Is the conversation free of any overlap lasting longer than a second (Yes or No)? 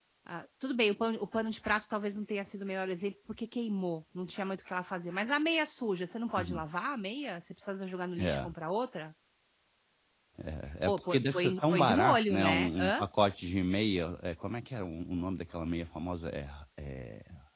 No